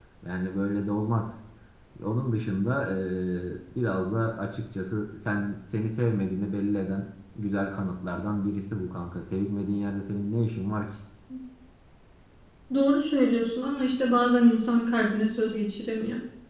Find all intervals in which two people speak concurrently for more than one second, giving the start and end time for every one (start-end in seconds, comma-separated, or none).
none